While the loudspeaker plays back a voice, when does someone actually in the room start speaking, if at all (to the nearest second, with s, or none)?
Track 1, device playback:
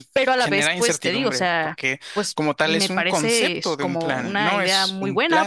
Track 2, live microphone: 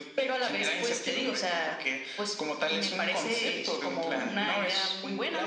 none